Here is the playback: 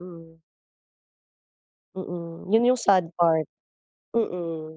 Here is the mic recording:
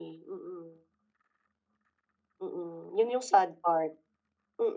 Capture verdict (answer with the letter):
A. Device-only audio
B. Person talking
A